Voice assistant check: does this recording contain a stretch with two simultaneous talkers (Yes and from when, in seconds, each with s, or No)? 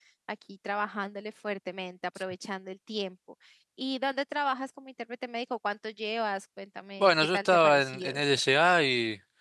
Yes, from 7.0 s